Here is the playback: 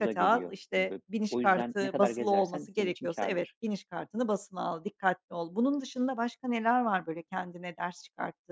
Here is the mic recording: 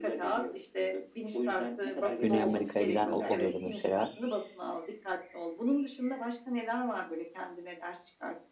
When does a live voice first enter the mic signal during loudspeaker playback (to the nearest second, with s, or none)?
2 s